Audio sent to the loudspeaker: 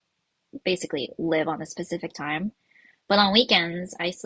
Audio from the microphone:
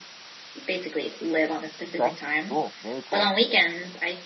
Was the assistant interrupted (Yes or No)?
Yes